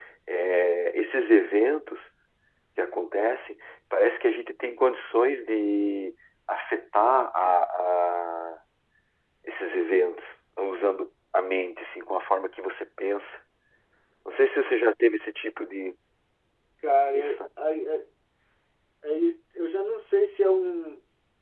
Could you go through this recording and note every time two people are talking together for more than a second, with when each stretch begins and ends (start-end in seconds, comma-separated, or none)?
none